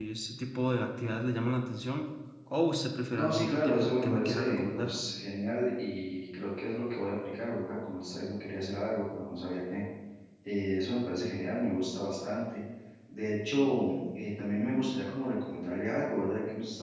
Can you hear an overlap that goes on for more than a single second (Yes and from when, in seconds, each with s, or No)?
Yes, from 3.2 s